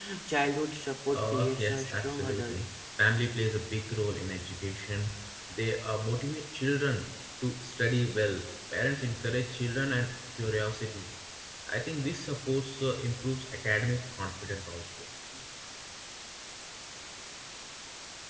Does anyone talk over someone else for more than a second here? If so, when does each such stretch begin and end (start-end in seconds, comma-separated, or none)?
1.1-2.6